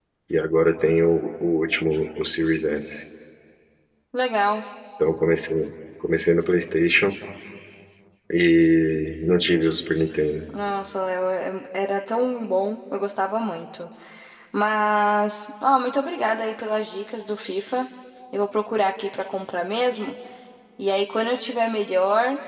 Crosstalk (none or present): none